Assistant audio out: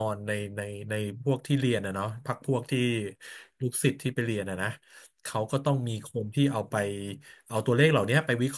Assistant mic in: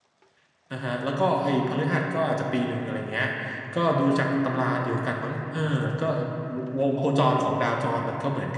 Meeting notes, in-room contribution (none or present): present